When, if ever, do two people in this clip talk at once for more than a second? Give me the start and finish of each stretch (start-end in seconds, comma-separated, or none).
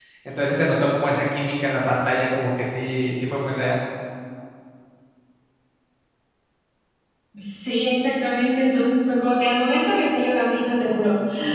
none